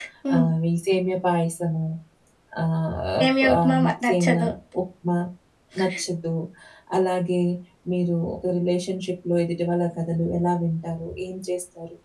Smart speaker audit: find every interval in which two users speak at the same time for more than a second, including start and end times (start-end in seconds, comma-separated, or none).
3.2-4.4